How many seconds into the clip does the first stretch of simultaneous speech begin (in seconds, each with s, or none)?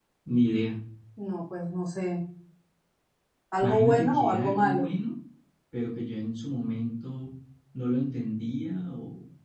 3.6 s